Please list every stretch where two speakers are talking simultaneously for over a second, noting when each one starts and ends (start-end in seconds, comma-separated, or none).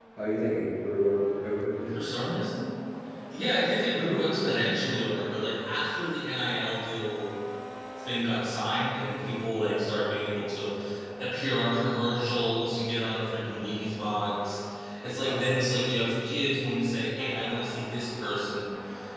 none